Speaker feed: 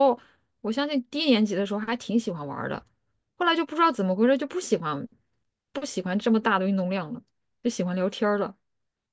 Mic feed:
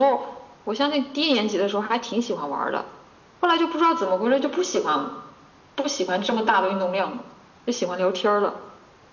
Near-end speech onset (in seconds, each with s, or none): none